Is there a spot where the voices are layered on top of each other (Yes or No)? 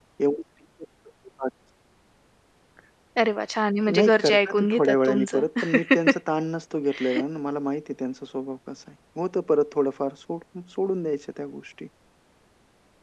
Yes